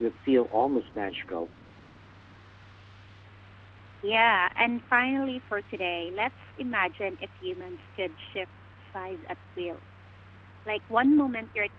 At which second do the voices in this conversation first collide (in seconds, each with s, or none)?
none